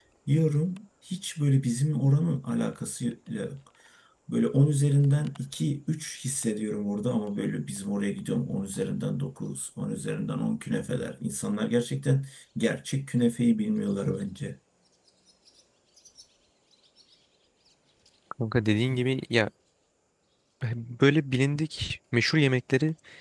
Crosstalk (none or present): none